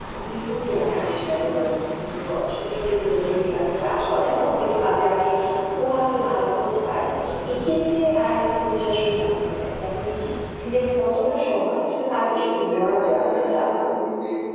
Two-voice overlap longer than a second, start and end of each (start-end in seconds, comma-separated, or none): 12.2-13.6